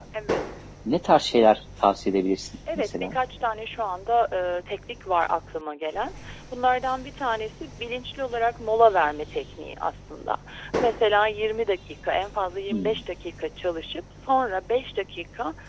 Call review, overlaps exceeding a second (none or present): none